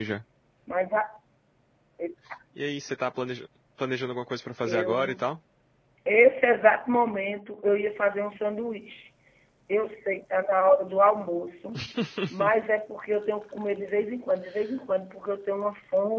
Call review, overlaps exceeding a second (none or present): none